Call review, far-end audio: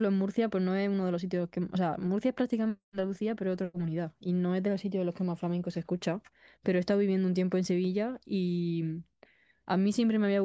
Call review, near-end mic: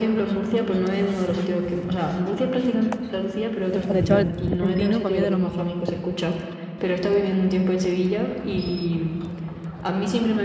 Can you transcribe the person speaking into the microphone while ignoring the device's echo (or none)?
El- de hecho, el trap argentino para mí es de lo mejor.